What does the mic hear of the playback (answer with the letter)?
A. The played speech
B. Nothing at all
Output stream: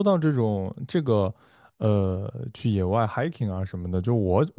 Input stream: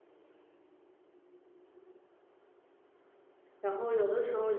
B